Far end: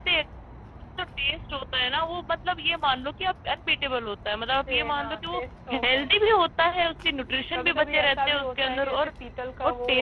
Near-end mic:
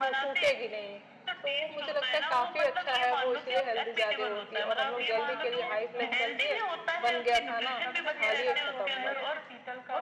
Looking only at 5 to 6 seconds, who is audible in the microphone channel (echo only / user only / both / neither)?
both